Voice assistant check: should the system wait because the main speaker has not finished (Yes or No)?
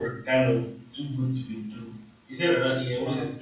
Yes